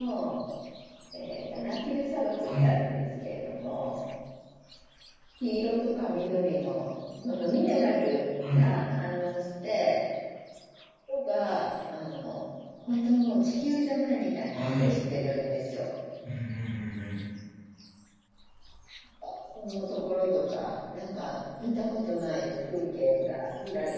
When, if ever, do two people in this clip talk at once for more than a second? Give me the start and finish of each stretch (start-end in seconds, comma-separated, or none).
none